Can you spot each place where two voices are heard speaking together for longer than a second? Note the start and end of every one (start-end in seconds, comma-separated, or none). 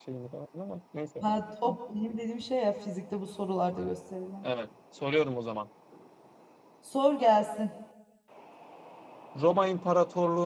none